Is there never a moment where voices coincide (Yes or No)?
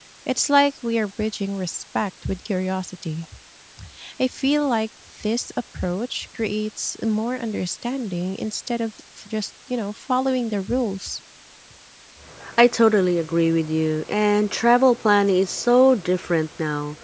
Yes